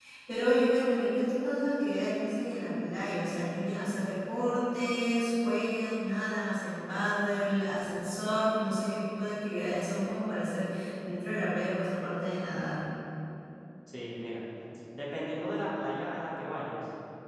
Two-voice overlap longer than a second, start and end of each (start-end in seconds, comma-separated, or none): none